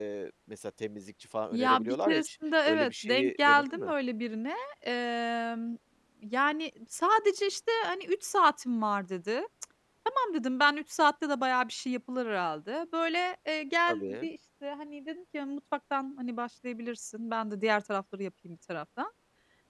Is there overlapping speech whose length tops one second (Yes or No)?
Yes